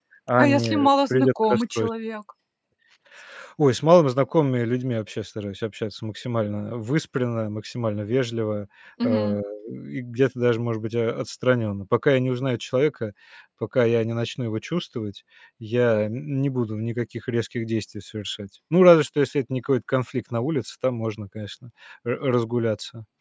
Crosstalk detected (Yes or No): Yes